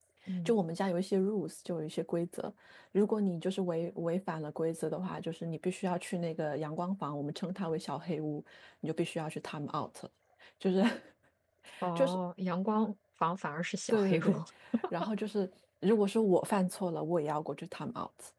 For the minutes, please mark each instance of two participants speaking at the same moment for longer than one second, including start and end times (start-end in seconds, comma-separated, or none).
none